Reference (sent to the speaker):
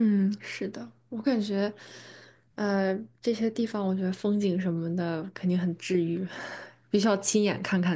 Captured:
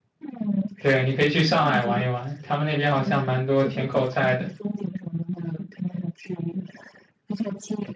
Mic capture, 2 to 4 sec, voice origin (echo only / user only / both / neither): both